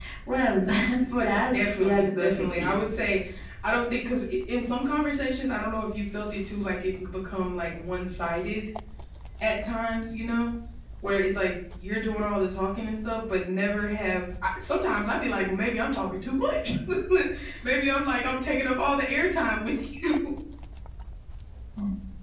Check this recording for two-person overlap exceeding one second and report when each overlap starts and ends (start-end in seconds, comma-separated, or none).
1.3-2.8